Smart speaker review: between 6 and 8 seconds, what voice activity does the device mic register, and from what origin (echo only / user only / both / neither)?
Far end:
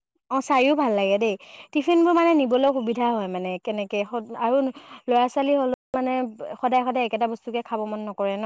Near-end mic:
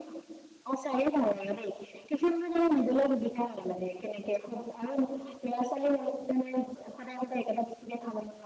echo only